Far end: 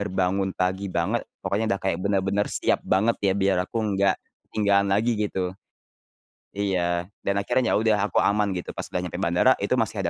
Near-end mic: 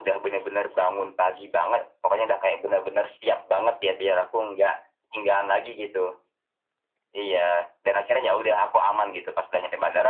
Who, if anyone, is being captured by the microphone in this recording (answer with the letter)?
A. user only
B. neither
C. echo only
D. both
C